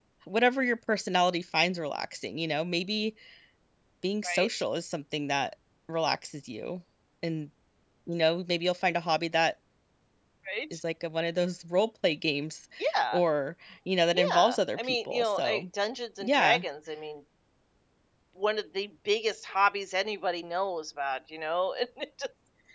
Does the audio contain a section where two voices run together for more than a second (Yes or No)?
Yes